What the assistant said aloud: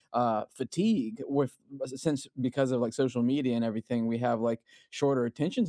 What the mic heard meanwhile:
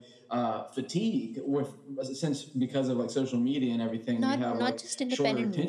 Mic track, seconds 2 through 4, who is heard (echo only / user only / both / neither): echo only